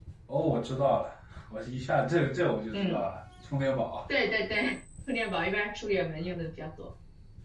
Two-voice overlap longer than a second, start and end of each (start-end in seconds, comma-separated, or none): none